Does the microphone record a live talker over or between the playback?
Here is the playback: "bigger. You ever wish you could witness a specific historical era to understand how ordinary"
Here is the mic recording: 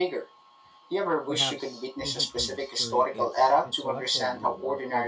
Yes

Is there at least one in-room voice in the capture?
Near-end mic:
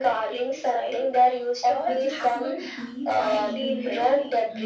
Yes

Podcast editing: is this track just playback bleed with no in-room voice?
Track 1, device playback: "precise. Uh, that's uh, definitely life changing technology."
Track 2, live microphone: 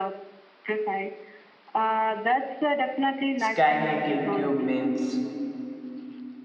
No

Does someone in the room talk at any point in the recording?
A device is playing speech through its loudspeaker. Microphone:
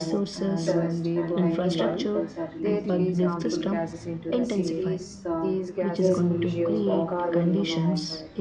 Yes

